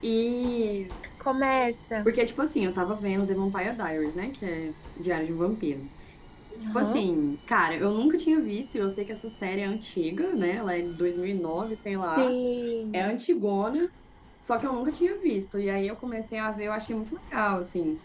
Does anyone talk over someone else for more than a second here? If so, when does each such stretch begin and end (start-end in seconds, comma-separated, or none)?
none